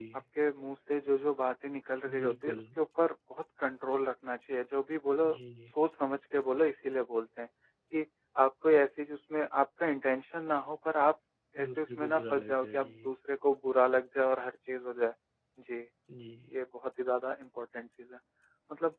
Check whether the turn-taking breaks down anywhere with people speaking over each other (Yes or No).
Yes